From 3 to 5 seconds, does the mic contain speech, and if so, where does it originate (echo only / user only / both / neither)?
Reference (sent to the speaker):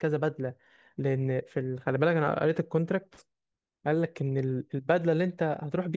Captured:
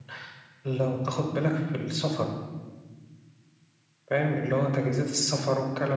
user only